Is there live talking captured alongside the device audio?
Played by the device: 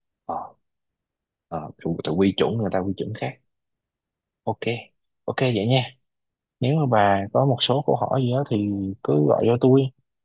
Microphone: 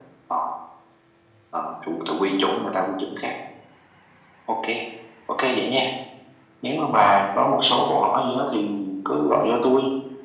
No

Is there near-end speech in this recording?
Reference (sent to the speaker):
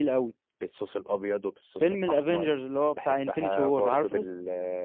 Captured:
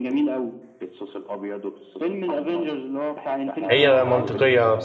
Yes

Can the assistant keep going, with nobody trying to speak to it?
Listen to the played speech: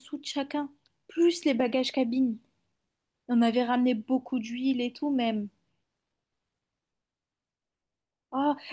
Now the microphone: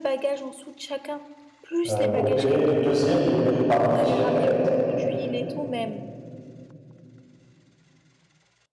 No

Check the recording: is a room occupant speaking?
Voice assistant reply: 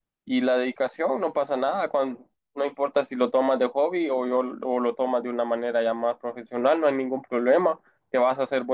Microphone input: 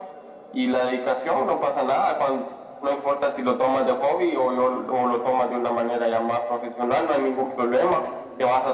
No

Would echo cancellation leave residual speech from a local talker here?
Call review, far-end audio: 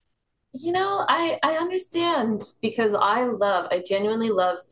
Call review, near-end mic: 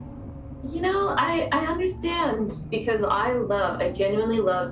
No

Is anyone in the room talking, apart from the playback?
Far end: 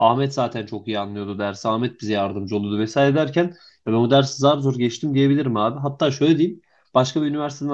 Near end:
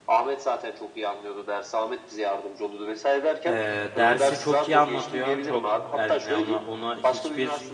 Yes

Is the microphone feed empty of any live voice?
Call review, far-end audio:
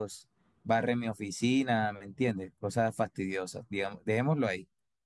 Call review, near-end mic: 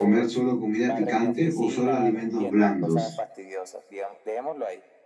No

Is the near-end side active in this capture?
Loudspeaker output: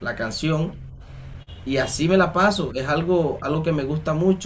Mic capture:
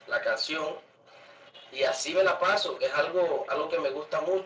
No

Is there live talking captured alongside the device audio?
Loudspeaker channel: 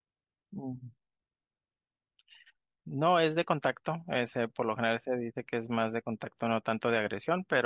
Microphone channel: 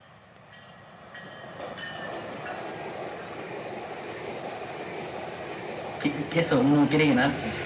Yes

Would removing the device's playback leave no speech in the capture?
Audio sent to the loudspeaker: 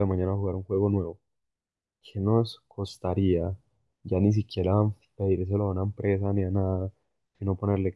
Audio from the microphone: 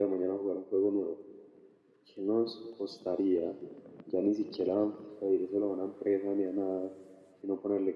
Yes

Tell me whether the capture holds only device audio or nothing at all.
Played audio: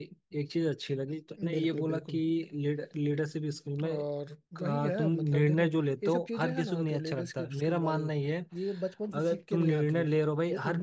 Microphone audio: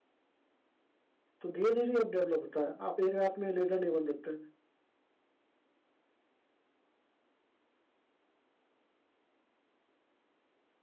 No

